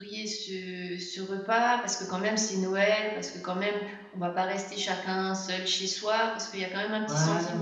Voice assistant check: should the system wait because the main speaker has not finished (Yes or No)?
Yes